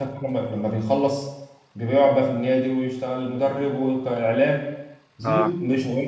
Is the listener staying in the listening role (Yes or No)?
Yes